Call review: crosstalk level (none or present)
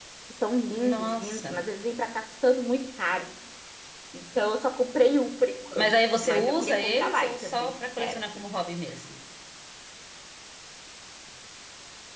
present